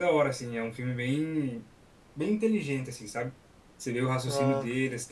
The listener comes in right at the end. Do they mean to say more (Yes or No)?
No